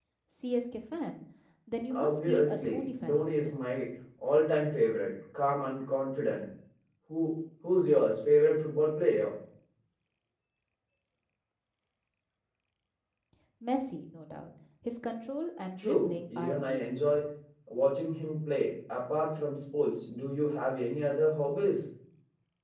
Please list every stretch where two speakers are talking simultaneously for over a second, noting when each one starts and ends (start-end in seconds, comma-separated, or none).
1.9-3.5, 15.8-17.0